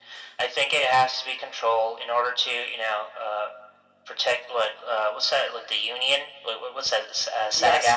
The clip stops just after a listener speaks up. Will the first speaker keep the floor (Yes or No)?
No